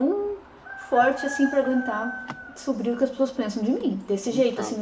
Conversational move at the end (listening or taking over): listening